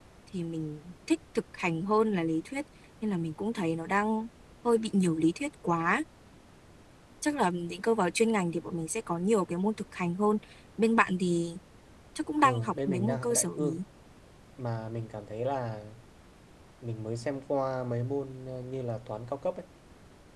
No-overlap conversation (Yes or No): No